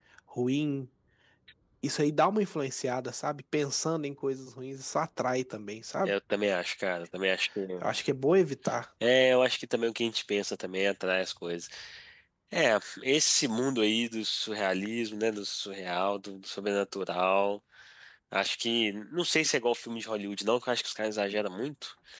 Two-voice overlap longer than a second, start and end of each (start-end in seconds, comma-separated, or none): none